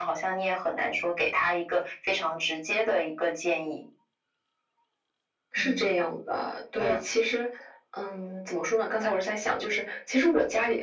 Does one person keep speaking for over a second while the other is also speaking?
No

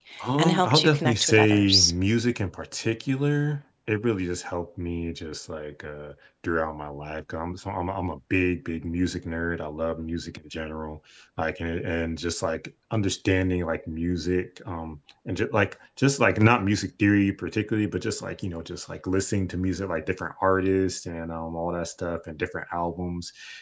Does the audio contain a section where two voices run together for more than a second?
Yes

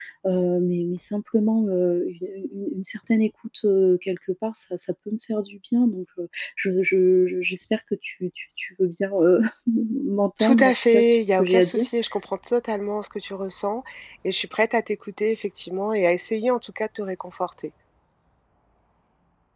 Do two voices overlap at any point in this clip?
Yes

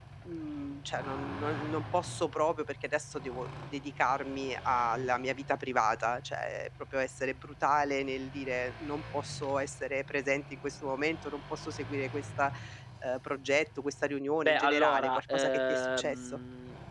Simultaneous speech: Yes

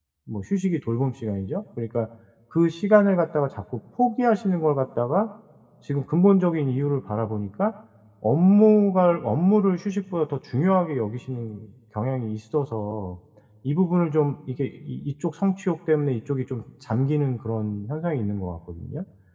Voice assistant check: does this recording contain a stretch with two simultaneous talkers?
No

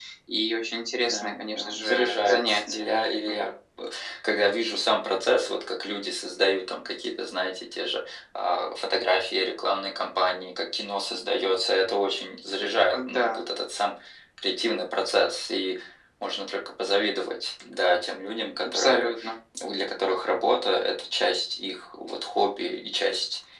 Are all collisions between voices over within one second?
No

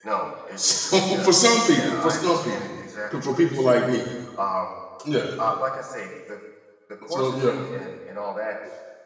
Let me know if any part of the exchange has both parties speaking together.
Yes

